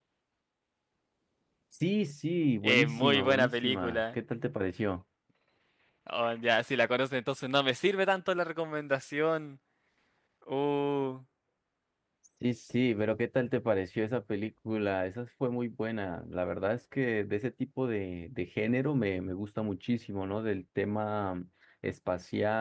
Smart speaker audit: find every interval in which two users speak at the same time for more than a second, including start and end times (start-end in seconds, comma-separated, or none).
2.6-4.2